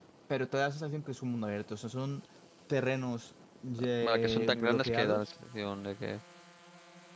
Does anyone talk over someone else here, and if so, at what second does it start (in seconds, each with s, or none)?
4.0 s